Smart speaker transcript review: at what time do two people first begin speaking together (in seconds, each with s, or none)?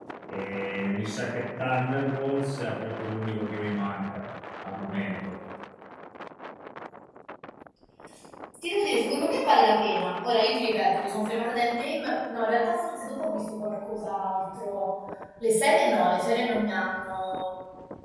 none